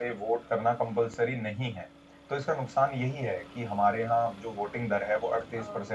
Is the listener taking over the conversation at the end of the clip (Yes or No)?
No